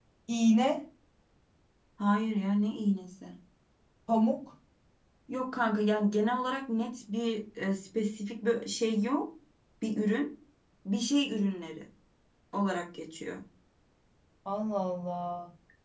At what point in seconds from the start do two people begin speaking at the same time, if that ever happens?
none

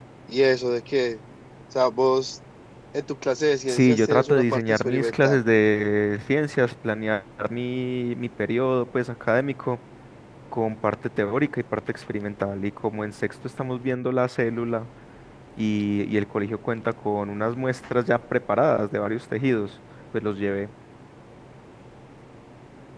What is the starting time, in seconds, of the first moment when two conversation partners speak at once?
3.7 s

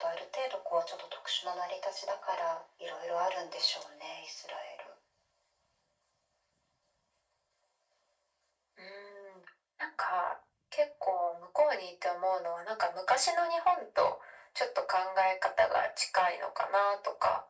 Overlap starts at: none

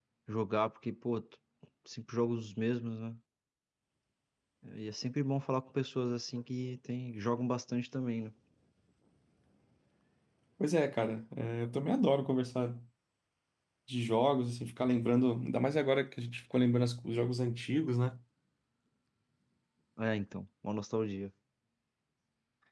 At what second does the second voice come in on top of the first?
none

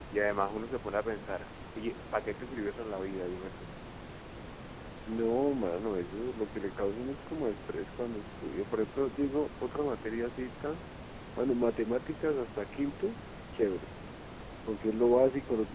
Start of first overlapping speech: none

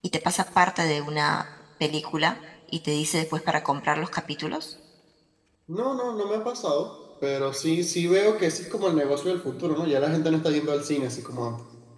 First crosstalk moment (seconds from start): none

